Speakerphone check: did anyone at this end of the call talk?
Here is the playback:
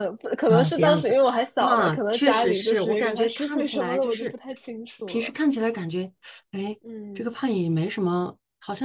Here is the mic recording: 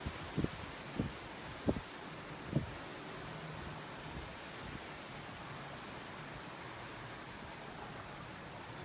No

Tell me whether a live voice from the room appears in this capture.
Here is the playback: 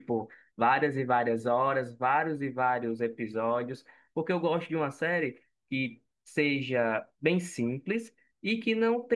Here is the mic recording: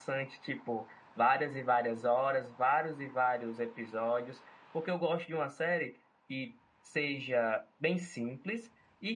No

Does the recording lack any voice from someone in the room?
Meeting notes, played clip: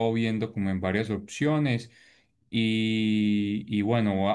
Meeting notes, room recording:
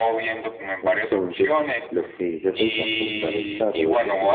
No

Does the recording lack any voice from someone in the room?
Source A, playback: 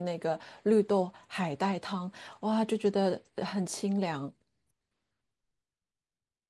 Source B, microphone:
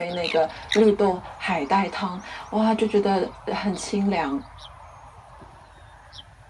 Yes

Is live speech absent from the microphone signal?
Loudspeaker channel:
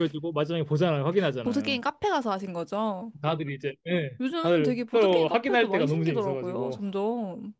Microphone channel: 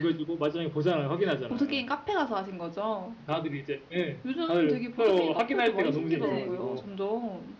No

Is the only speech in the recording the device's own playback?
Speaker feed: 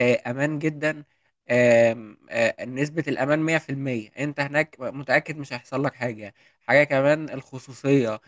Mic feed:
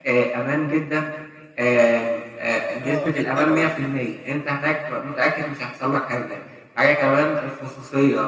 No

